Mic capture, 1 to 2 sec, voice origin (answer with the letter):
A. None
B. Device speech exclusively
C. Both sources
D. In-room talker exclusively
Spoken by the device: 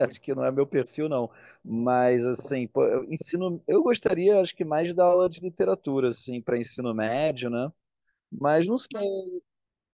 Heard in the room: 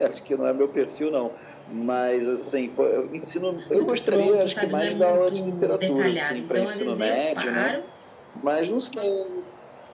B